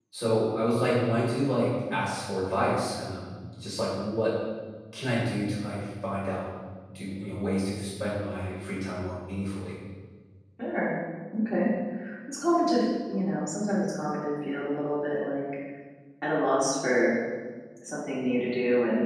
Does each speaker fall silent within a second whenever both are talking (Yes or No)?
Yes